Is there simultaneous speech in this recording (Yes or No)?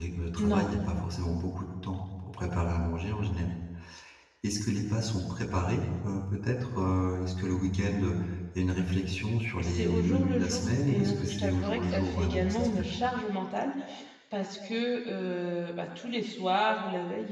Yes